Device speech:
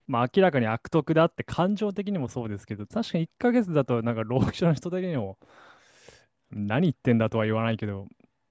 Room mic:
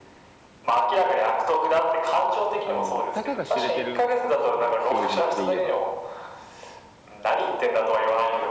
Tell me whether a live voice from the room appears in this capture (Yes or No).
Yes